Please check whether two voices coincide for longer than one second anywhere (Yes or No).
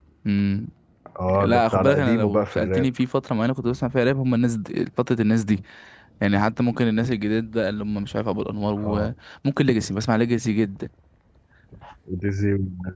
Yes